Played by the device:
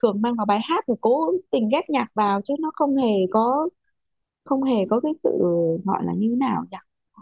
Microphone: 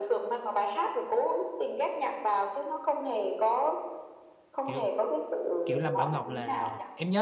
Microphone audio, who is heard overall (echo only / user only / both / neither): both